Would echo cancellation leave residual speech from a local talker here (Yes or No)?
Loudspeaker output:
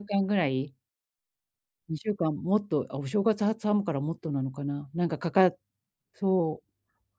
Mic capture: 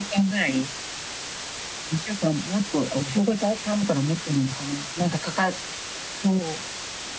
No